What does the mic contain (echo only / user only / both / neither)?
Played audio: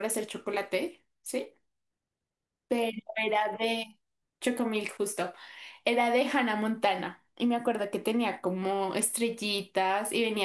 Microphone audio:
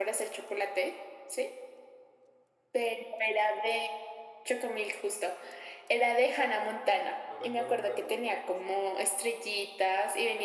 both